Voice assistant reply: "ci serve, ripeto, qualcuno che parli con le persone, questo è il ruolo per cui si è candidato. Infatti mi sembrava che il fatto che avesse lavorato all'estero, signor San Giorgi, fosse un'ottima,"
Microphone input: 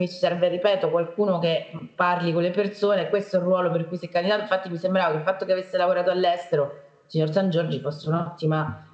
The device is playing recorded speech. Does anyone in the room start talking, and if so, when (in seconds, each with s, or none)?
none